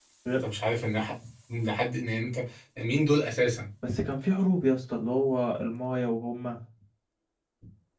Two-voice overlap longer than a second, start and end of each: none

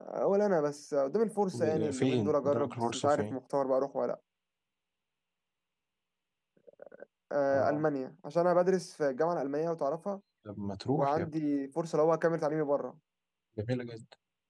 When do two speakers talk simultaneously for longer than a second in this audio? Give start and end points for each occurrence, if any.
1.5-3.4

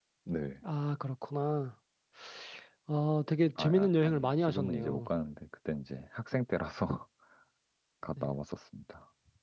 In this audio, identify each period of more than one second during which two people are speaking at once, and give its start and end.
3.6-5.0

